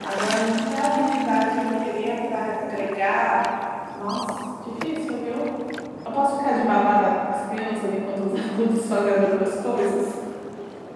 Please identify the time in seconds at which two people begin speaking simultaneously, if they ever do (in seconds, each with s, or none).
none